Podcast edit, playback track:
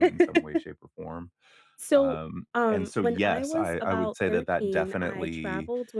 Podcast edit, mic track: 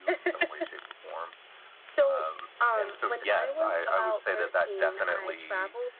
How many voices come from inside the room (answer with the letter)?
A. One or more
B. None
B